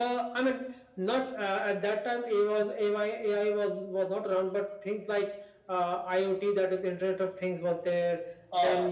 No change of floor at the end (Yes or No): Yes